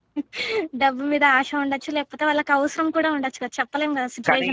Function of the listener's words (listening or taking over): taking over